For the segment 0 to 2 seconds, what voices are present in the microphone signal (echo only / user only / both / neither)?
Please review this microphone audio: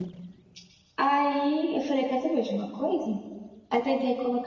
user only